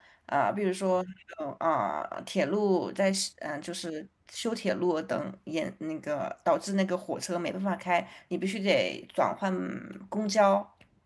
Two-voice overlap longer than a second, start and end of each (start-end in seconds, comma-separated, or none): none